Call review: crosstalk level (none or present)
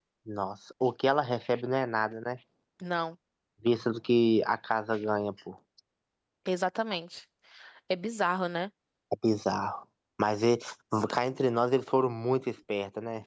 none